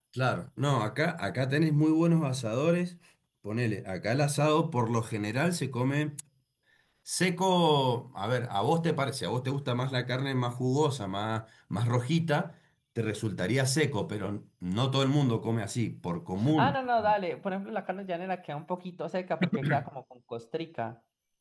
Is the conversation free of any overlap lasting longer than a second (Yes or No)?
Yes